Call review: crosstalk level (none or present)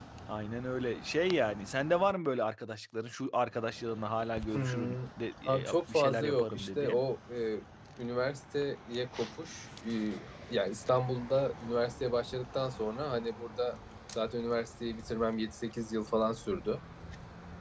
present